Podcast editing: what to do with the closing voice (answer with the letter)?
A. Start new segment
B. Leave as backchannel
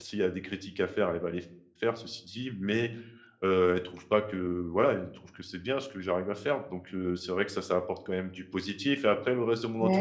B